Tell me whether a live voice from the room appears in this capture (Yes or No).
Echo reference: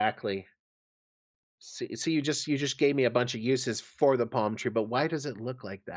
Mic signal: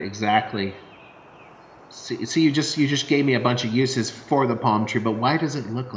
No